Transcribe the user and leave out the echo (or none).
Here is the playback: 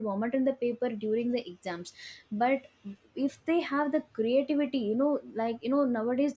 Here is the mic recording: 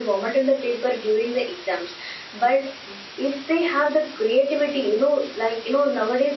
none